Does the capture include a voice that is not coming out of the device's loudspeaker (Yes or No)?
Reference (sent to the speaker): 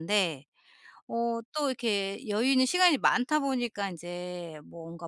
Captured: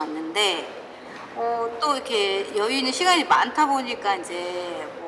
No